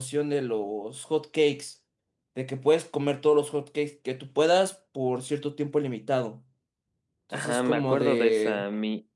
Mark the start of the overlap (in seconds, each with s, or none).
7.3 s